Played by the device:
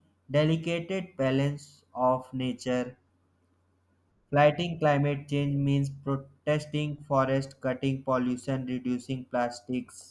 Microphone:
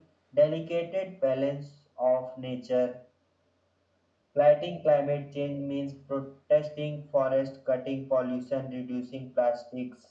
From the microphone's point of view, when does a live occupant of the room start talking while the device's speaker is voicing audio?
none

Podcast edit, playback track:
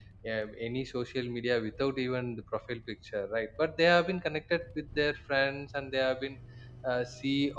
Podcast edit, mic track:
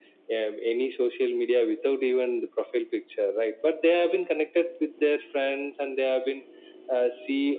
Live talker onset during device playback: none

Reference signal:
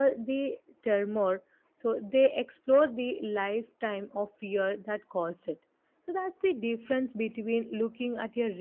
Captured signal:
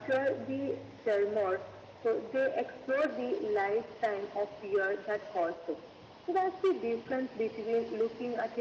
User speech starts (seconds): none

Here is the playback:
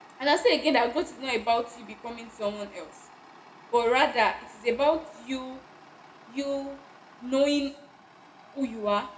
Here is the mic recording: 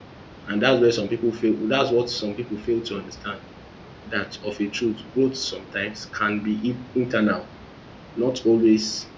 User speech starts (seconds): 0 s

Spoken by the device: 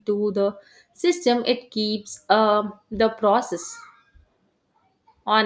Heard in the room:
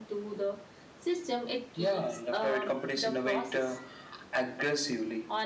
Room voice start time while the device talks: 2 s

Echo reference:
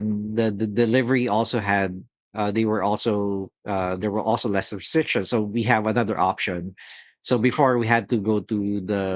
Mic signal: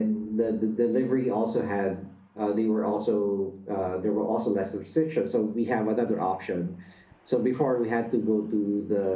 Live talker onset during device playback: none

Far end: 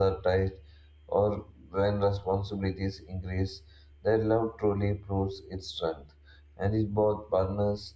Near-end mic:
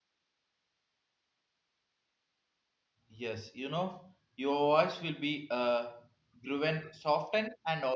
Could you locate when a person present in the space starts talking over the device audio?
3 s

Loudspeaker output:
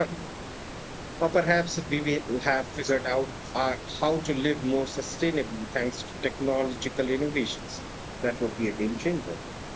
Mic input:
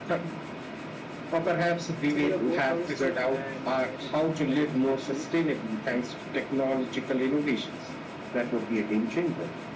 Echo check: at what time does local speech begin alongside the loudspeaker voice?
2 s

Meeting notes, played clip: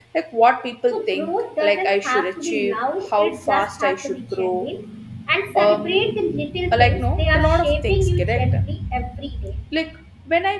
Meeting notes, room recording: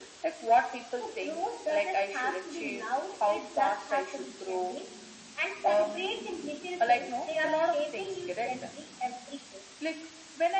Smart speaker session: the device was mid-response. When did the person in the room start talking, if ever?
none

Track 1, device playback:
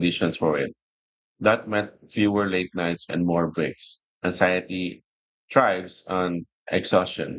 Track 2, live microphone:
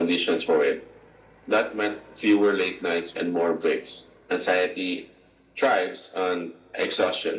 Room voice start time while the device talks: none

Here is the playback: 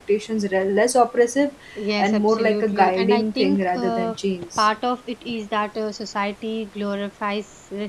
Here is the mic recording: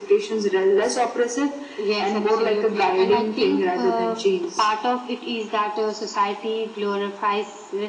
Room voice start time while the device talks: none

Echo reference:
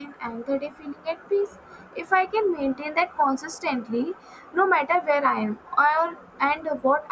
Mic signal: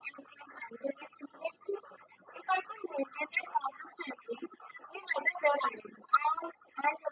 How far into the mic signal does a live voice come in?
none

